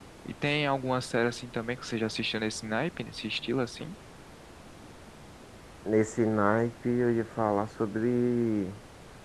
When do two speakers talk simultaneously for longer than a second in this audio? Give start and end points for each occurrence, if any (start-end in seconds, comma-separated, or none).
none